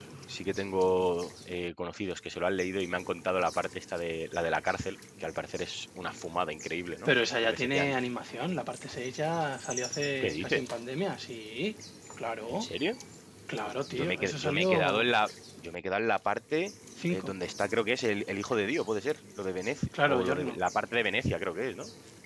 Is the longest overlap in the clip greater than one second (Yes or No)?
Yes